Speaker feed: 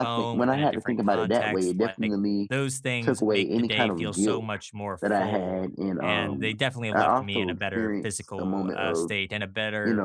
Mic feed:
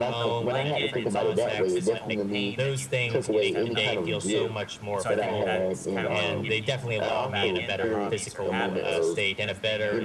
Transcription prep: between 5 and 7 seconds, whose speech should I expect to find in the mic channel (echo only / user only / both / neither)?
both